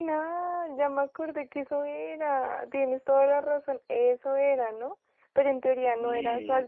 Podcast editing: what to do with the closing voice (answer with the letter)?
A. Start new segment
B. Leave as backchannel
B